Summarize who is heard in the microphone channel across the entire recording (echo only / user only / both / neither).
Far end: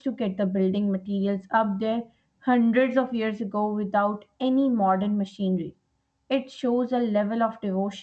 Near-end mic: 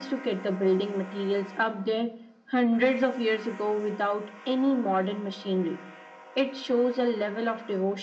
echo only